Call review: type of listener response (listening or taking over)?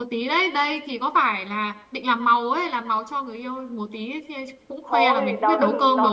taking over